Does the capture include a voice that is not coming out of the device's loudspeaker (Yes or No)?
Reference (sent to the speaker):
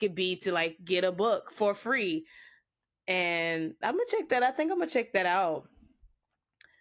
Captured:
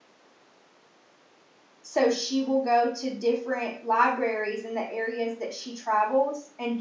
Yes